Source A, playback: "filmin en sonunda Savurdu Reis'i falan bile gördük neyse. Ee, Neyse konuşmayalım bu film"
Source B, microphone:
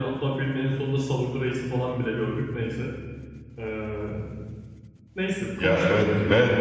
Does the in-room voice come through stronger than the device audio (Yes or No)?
Yes